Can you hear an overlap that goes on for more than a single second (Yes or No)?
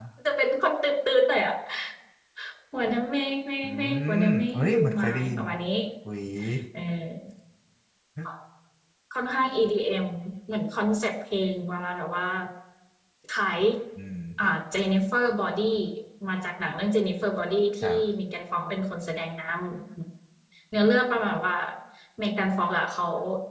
Yes